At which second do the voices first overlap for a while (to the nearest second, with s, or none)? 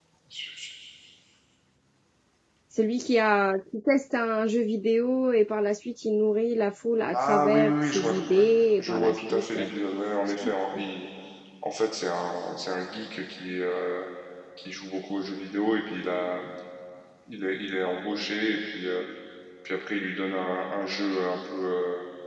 7 s